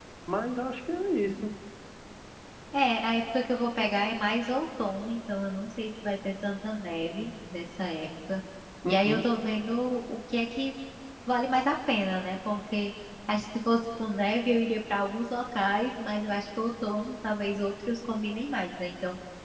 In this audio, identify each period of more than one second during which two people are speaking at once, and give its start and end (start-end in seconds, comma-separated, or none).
none